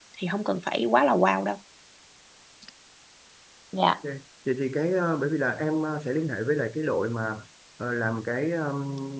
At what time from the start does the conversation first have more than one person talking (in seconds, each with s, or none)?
none